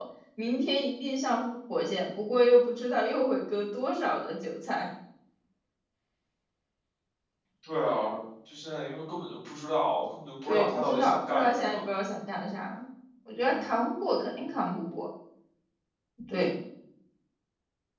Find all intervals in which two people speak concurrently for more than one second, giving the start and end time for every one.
10.4-11.8

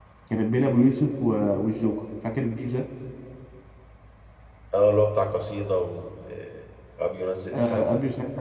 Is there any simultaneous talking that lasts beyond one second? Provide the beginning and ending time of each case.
none

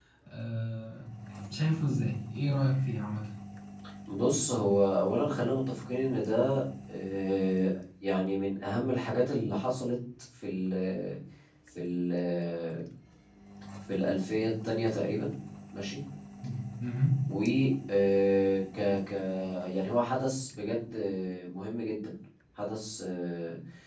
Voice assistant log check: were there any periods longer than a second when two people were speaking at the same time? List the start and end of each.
none

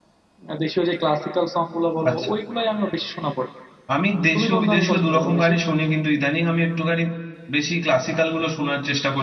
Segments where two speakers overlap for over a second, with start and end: 4.3-5.5

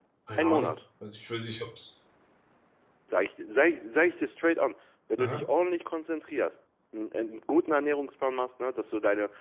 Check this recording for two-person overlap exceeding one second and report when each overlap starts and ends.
none

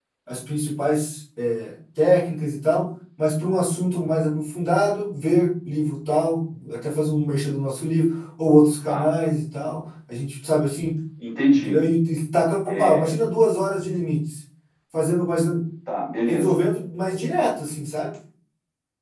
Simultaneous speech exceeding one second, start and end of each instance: none

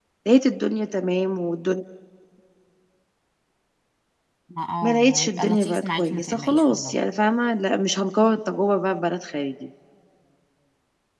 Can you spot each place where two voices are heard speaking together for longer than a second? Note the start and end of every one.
4.8-7.0

